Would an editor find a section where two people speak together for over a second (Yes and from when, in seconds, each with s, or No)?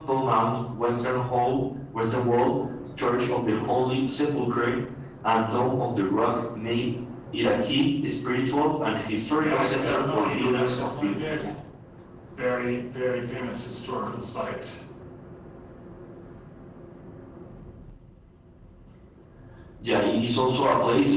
Yes, from 9.4 s